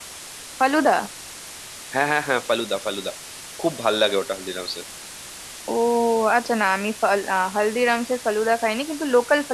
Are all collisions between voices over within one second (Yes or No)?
Yes